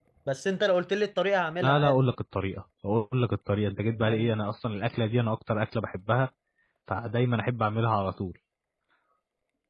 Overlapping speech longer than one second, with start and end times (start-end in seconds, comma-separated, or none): none